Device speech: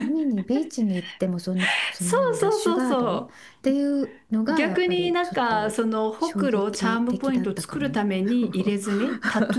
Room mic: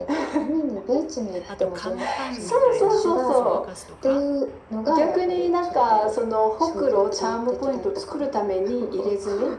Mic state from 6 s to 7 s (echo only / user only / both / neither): echo only